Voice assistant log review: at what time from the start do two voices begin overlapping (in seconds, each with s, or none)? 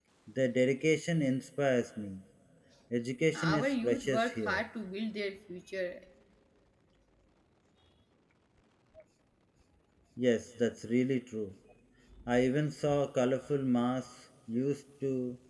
3.3 s